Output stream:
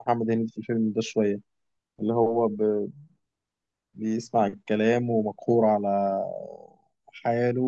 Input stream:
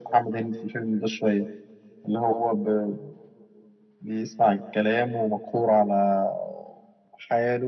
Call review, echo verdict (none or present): present